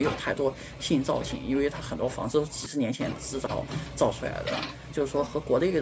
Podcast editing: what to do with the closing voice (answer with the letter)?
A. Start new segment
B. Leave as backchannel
B